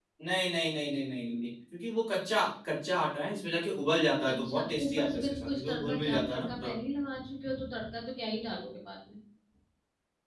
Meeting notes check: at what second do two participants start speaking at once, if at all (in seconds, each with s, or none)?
4.2 s